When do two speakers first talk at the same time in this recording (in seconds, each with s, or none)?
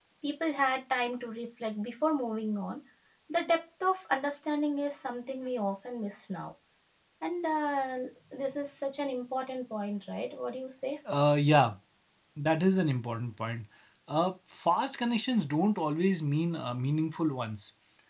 none